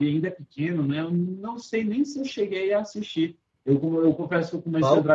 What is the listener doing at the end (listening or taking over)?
listening